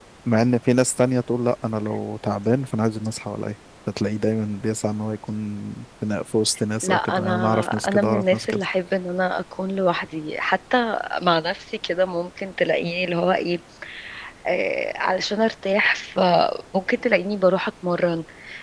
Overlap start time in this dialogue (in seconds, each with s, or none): 6.8 s